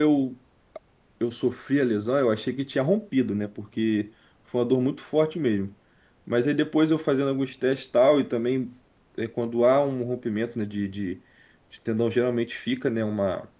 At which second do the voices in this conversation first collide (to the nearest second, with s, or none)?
none